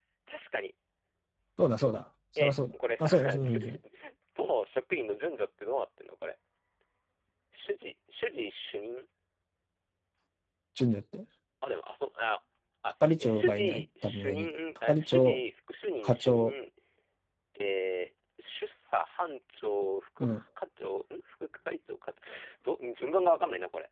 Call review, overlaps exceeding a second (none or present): present